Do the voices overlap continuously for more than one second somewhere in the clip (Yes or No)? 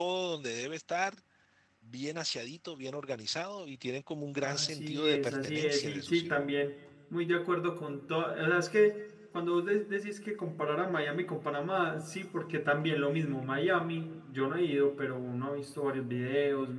Yes